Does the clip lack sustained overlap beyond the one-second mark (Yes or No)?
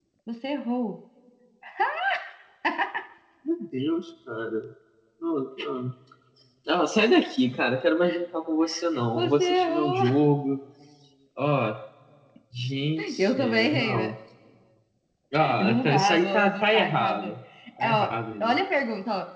No